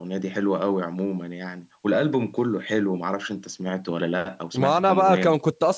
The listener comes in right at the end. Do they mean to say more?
Yes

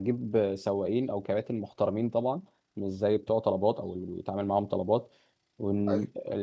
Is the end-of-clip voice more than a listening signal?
No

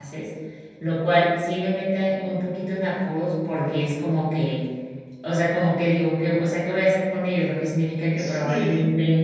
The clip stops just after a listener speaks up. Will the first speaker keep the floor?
Yes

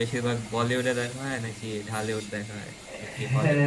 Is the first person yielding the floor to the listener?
Yes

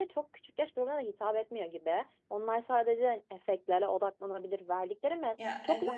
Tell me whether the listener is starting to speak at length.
No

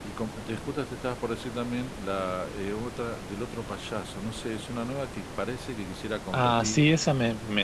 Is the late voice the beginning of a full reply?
Yes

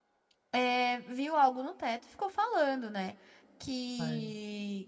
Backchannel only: Yes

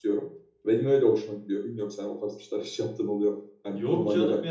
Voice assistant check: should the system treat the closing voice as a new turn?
Yes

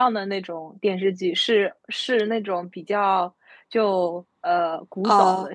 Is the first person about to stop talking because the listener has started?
No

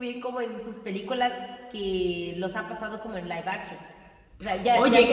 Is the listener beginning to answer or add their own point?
No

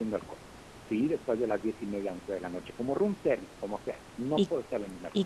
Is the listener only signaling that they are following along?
No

